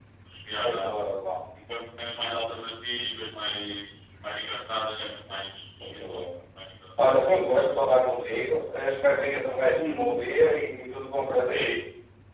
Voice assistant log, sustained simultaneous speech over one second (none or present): none